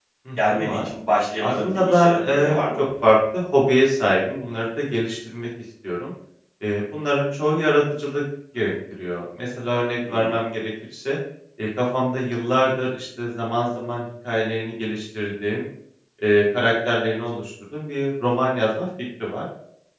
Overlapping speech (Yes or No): Yes